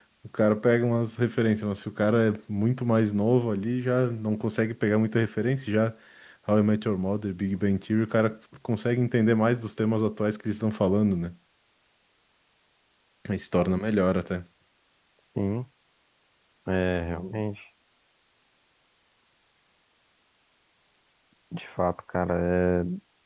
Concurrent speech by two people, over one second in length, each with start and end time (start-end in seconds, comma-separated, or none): none